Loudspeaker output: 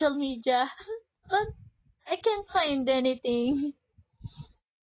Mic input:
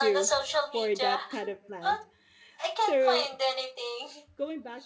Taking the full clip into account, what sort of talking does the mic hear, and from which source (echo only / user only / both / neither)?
both